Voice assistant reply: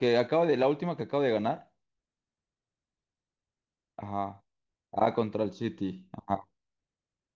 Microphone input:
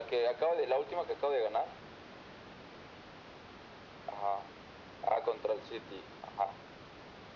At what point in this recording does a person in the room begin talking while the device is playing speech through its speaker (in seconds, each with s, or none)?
none